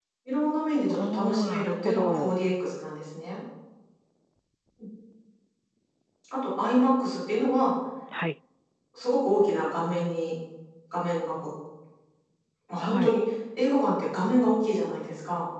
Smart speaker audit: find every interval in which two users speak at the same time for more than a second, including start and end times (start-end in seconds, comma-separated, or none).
0.9-2.3